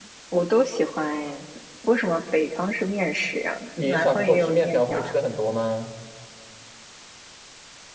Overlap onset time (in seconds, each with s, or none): 3.8 s